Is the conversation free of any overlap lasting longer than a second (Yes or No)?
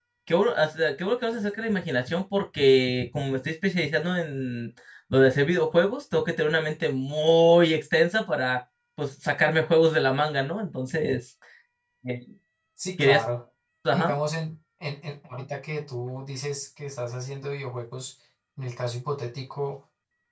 Yes